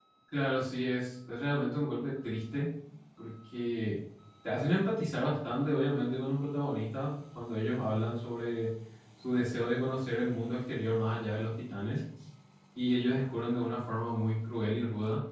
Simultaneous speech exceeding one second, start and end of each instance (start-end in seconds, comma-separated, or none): none